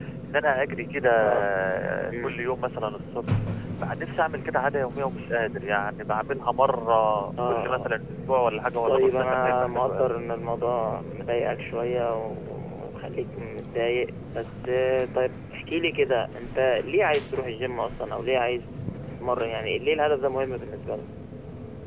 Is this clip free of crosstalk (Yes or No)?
No